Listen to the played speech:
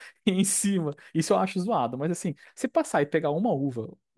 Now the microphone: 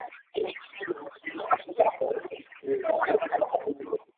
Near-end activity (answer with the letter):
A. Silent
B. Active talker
B